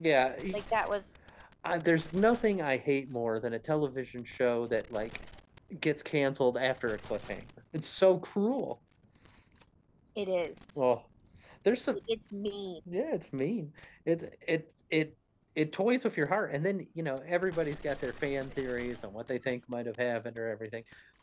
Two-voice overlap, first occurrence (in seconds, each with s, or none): none